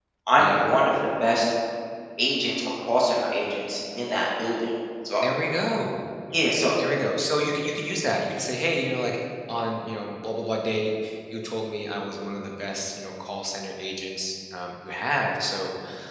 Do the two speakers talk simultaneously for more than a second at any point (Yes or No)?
No